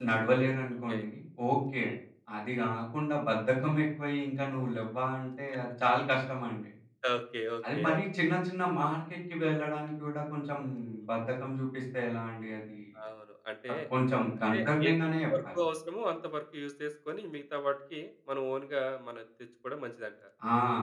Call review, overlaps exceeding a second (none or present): present